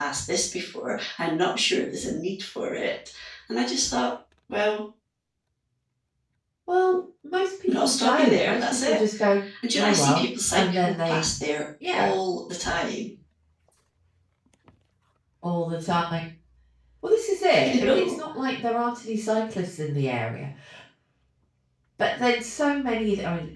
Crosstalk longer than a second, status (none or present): present